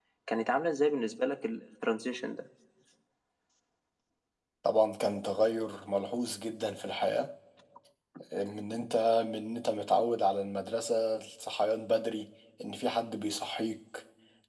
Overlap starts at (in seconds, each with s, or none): none